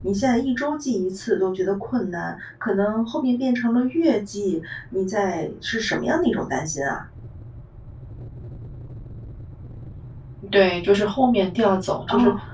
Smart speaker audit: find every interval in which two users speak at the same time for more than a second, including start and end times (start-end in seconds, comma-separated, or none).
none